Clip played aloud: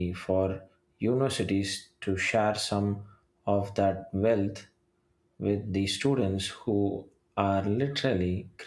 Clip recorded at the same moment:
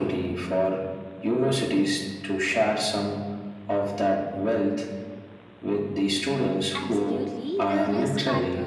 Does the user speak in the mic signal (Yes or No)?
Yes